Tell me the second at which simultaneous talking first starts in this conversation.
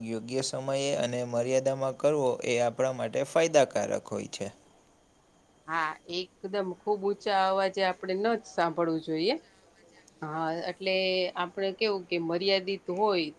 none

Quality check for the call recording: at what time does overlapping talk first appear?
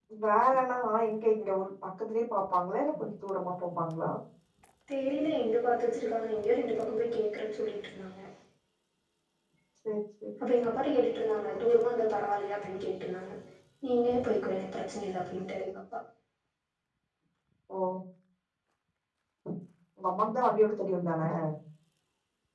none

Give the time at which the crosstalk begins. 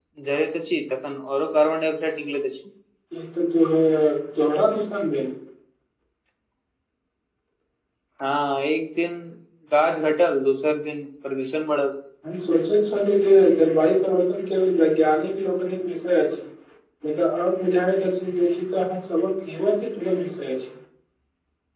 none

